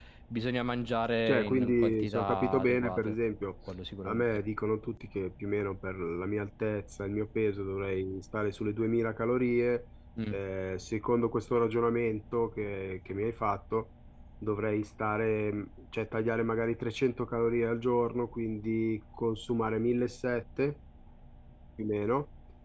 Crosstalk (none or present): present